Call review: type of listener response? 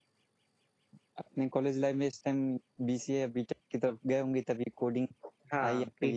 taking over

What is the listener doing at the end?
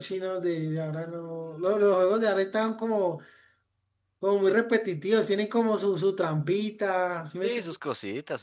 taking over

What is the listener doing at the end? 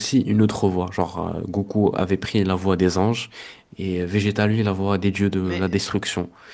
listening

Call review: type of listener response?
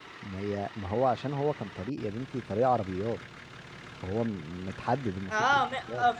taking over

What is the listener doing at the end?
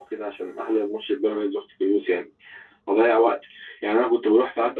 listening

